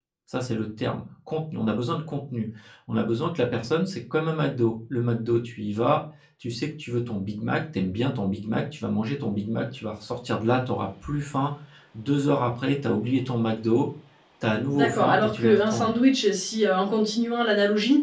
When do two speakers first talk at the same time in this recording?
14.7 s

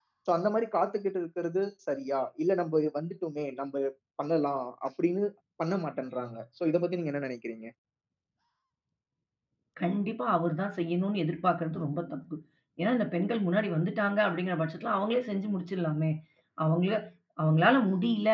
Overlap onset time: none

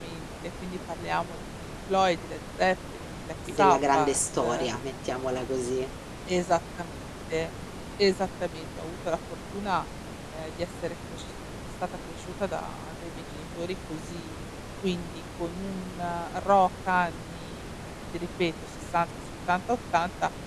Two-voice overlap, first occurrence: 3.5 s

